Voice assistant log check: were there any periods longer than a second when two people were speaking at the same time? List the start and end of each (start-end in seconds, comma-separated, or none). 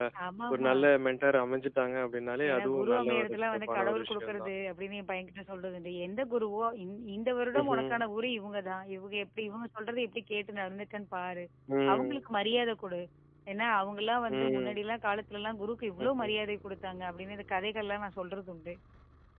2.5-4.5